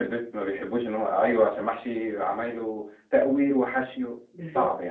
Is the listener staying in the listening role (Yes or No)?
No